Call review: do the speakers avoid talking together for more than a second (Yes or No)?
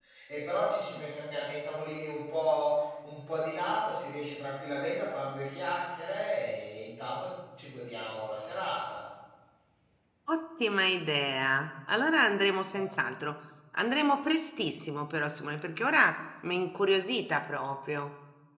Yes